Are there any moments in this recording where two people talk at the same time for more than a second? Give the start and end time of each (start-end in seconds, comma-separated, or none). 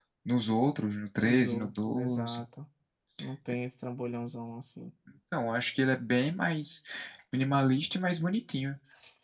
1.2-2.4